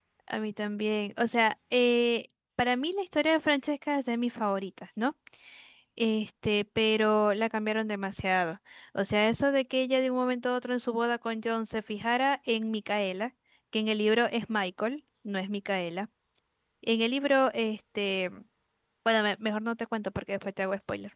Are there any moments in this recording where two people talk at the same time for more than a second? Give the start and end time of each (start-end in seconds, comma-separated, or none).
none